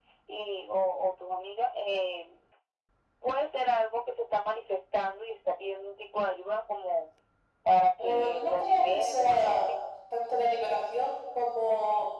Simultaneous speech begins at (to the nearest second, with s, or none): 8 s